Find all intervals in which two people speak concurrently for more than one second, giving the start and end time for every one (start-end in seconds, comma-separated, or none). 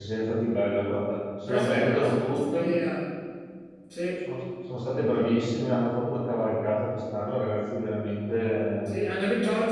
1.5-2.7